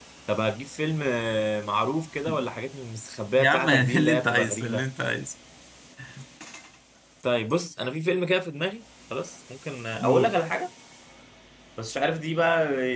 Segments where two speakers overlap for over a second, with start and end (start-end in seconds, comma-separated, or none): 3.4-4.8